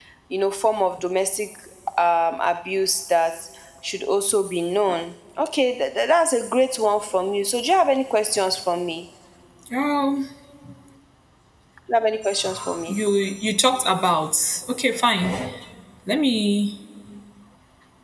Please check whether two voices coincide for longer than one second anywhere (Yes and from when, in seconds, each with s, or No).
No